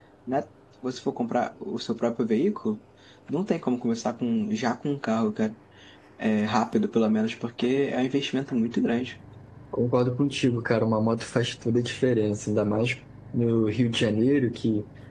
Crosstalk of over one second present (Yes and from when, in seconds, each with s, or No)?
No